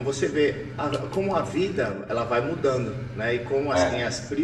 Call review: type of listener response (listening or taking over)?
listening